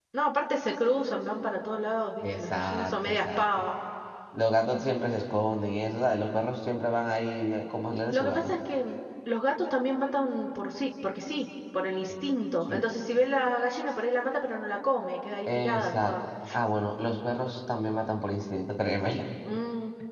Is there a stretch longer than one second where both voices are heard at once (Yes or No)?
Yes